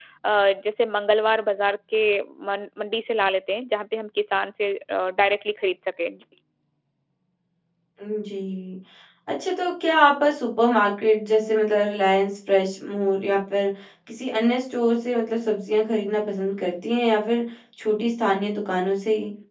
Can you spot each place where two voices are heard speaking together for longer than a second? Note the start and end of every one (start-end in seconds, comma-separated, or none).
none